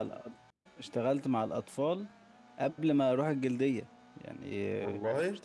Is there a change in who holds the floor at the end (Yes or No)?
No